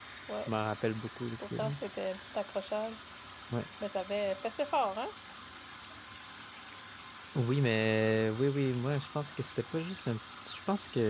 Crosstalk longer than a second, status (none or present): none